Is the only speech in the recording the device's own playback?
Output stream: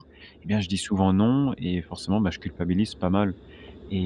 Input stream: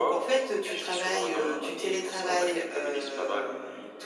No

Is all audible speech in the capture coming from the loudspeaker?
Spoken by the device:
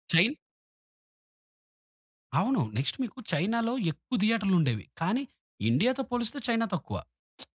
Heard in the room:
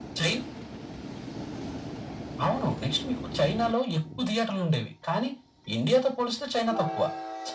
Yes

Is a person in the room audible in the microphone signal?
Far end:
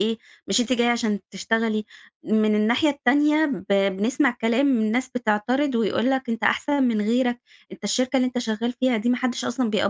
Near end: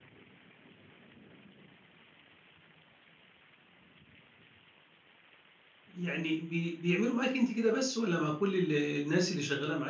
Yes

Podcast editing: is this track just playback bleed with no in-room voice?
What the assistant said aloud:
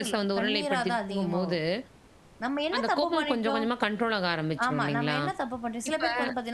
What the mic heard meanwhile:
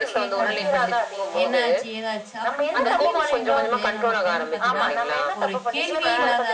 No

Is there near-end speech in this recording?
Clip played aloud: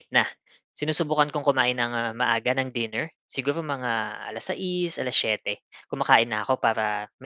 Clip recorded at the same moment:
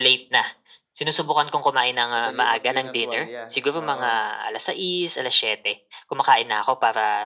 Yes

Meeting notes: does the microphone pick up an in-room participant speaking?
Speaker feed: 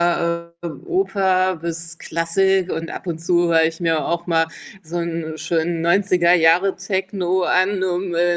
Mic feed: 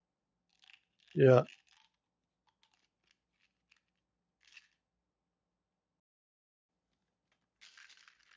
Yes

